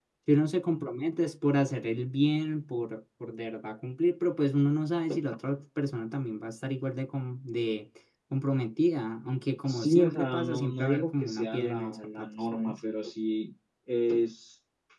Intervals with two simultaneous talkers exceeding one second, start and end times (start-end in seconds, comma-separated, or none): 9.7-12.8